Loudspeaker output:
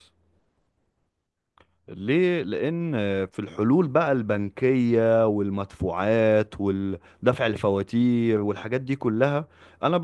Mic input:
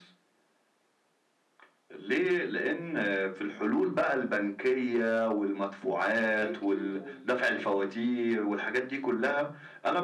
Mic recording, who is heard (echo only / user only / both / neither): both